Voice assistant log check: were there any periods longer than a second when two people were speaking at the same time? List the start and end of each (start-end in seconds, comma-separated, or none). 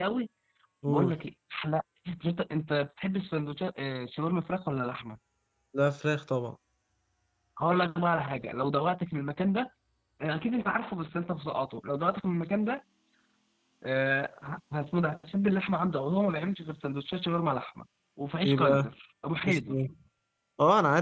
none